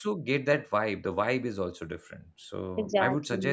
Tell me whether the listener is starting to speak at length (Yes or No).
No